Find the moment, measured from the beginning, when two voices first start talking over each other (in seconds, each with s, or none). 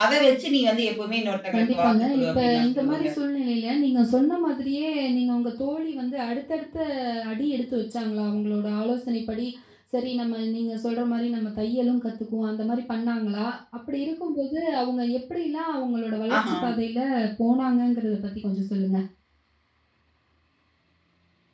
1.5 s